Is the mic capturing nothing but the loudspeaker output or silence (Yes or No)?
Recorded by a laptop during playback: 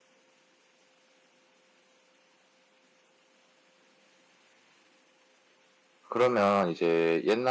No